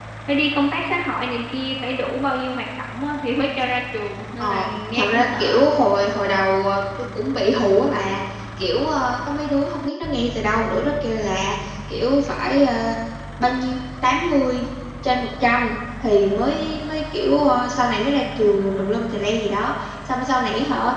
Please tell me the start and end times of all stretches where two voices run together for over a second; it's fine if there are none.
4.4-5.6

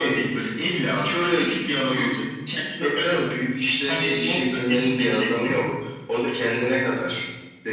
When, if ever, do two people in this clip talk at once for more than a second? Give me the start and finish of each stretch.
3.9-5.5

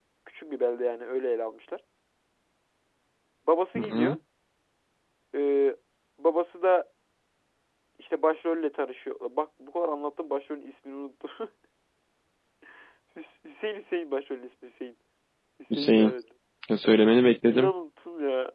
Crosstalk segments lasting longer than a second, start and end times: none

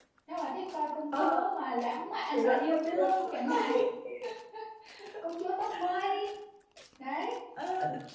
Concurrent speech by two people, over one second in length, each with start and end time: 2.3-3.7

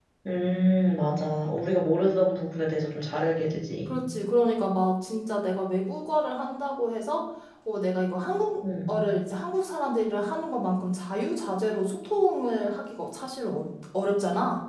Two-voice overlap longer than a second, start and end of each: none

